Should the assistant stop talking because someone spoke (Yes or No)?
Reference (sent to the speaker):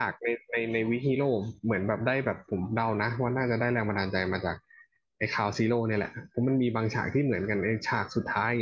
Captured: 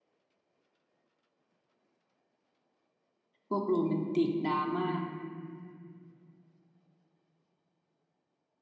Yes